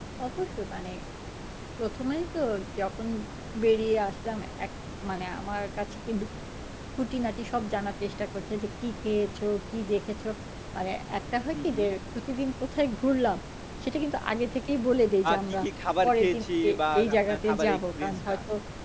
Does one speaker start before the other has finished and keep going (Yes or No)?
Yes